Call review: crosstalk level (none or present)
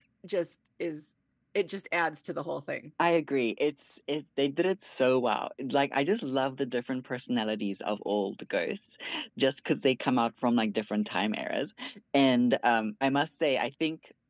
none